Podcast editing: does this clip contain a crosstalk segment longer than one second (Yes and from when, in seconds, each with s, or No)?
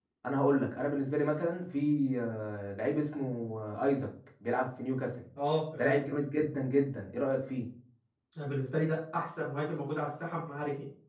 No